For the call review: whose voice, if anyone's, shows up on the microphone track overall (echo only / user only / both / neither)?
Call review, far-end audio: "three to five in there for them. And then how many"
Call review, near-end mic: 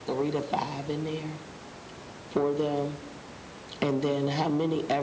echo only